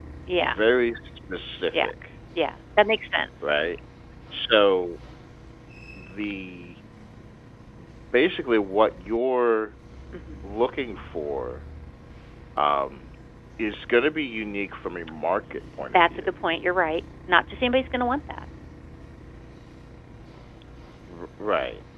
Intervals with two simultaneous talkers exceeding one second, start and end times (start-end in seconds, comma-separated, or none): none